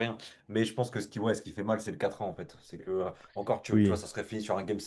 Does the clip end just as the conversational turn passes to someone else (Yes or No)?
No